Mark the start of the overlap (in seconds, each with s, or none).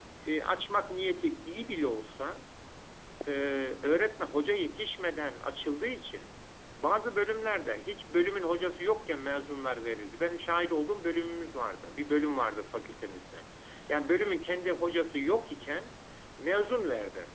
none